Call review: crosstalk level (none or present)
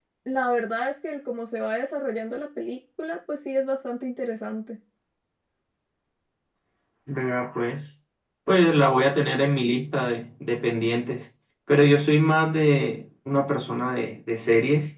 none